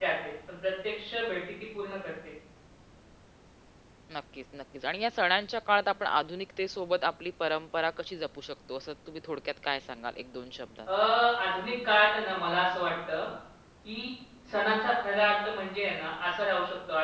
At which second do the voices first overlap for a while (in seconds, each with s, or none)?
none